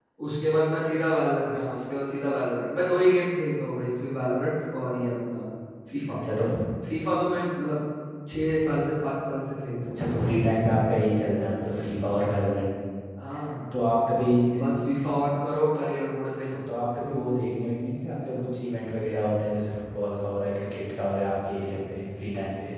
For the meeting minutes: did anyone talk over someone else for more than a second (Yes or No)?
No